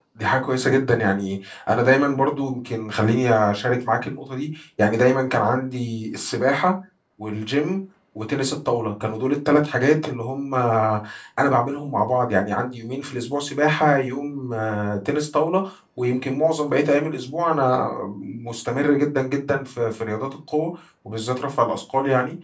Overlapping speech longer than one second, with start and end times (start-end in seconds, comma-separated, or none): none